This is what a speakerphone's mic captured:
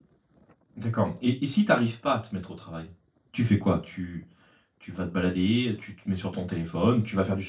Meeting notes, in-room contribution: present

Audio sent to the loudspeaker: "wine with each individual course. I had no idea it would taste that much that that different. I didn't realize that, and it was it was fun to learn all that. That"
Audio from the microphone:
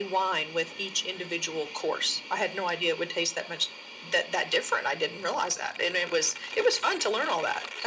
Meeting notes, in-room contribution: none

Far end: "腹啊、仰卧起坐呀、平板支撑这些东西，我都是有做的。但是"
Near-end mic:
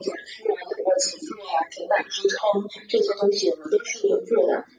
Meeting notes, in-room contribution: none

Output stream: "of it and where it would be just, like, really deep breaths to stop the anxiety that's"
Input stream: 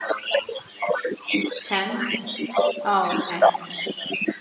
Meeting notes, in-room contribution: present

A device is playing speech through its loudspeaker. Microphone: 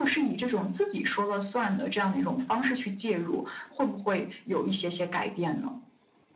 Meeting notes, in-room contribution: none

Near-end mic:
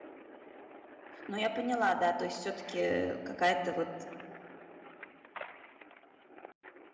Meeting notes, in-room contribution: present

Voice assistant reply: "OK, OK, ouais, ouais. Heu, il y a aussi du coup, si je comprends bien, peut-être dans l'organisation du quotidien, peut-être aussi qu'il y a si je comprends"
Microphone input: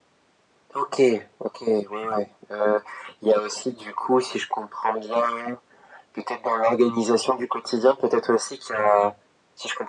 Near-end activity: none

